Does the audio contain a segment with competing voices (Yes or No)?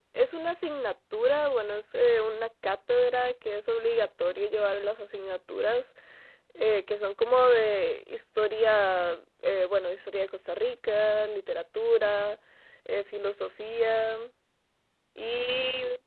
No